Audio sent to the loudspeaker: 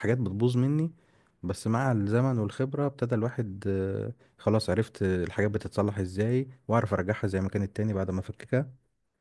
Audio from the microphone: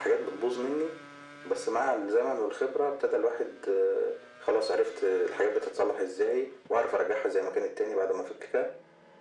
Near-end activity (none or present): none